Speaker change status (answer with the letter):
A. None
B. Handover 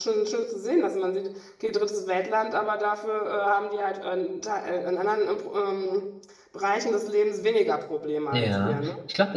B